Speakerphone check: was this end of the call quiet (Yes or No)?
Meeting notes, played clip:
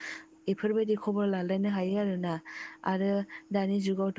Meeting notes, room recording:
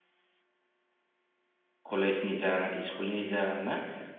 No